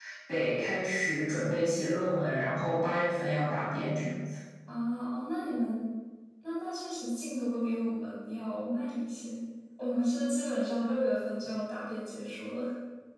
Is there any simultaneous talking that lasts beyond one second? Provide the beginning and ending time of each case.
none

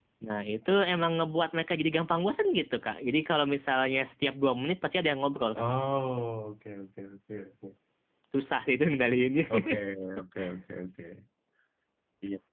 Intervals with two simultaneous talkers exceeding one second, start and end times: none

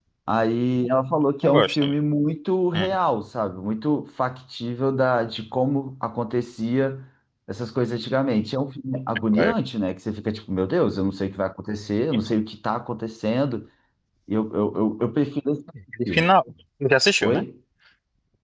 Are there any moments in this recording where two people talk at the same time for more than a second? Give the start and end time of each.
none

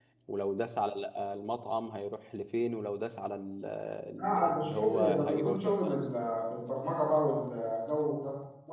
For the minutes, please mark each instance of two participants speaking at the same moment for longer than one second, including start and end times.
4.2-6.0

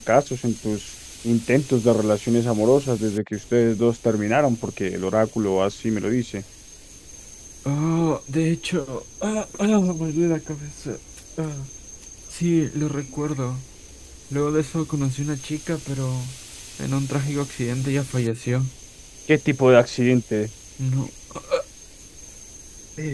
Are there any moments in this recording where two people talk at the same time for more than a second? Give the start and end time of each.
none

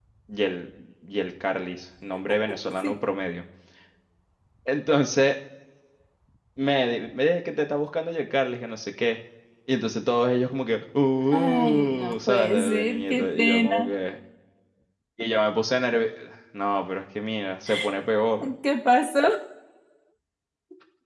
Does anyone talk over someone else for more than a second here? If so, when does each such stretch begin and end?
11.3-13.8

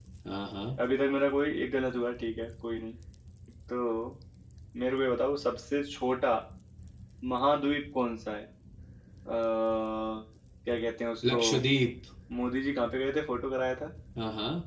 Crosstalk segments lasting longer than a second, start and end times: none

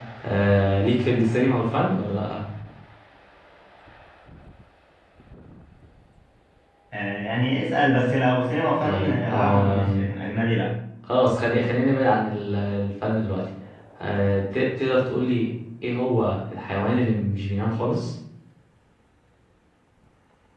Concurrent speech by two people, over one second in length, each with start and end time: 8.8-10.1

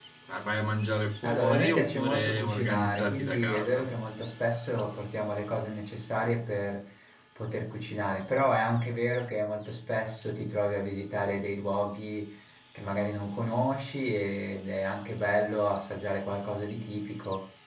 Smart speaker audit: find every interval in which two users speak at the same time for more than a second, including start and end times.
1.2-3.9

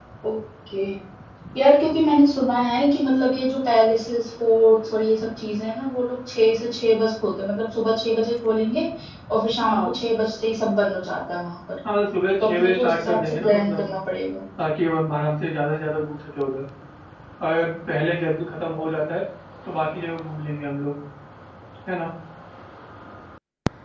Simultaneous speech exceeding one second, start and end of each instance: 12.4-13.8

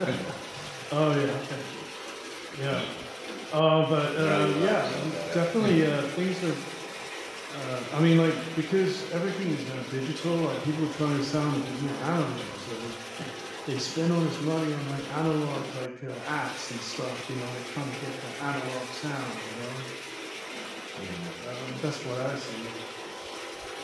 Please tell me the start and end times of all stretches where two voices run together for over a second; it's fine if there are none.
4.2-5.8

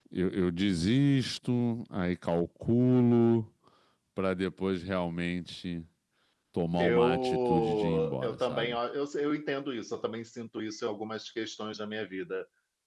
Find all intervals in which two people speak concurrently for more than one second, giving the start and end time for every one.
6.8-8.8

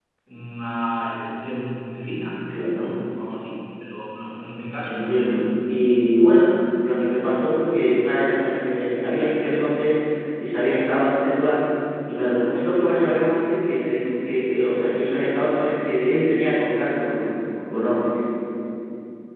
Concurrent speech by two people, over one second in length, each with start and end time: none

